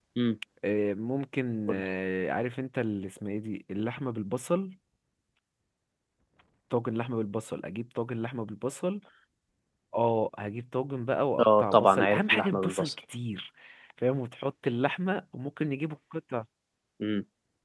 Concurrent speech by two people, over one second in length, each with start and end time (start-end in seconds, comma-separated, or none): 11.4-12.9